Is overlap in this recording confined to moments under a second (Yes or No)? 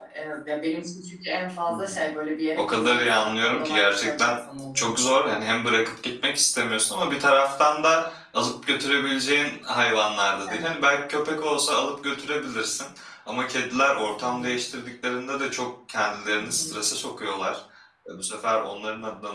No